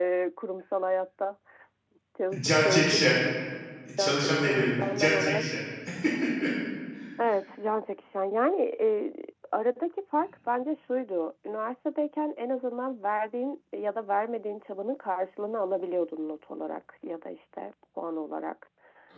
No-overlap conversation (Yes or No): No